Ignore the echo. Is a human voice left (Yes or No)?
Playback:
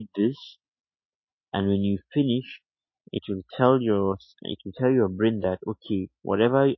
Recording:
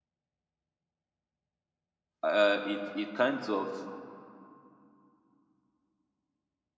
Yes